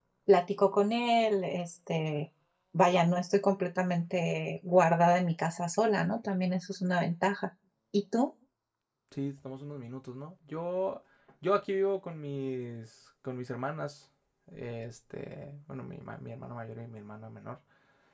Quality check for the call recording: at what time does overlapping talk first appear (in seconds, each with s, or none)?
none